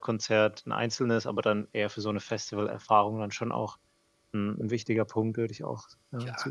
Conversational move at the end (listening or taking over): taking over